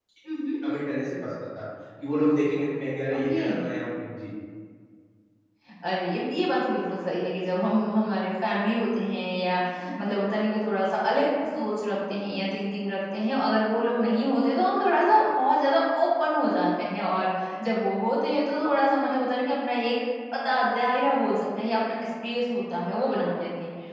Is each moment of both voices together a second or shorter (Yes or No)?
Yes